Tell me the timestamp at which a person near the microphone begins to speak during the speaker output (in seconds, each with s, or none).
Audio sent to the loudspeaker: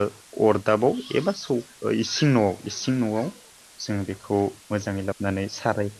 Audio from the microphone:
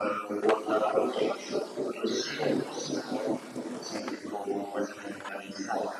none